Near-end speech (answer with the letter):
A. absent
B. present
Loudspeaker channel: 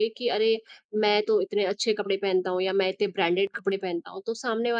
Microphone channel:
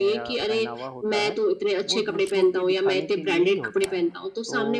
B